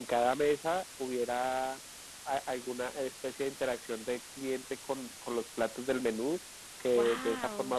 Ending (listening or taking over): listening